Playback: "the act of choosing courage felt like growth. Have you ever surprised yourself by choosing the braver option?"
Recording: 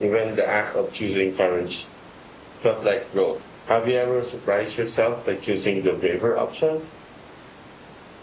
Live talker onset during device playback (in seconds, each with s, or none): none